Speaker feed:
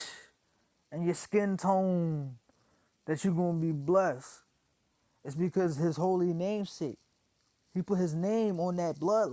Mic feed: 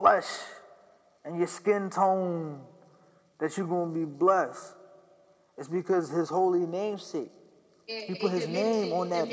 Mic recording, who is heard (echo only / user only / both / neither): both